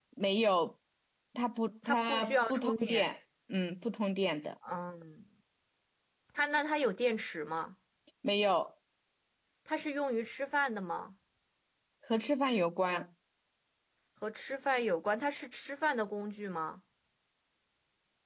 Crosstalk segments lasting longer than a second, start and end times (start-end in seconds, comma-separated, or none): 1.9-3.0